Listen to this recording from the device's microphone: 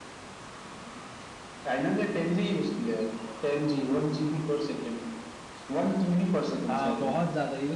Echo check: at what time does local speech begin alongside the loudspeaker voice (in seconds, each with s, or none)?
6.7 s